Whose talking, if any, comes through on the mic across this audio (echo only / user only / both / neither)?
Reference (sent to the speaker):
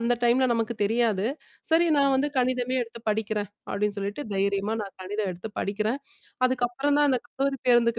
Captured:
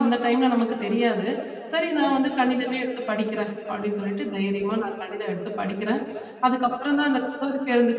echo only